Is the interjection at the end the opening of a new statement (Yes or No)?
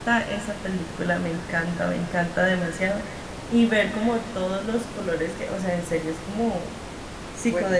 Yes